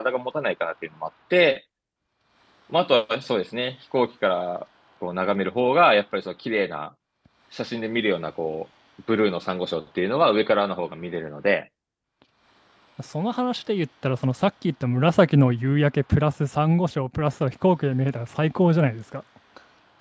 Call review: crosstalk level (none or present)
none